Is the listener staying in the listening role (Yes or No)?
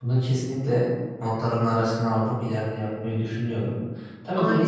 Yes